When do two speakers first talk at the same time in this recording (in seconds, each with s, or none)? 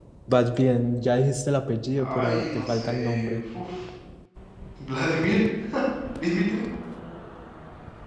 2.0 s